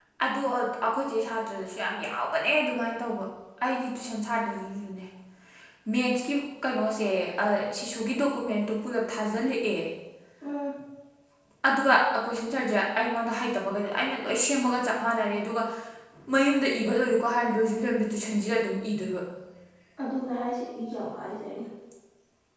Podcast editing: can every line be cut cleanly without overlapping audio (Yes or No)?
Yes